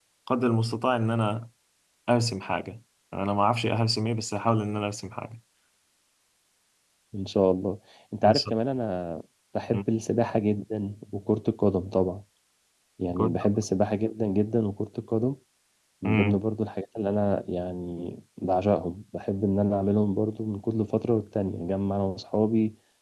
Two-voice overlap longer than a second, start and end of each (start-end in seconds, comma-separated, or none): none